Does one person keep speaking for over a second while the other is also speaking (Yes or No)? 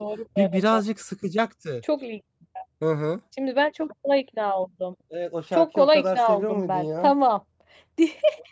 Yes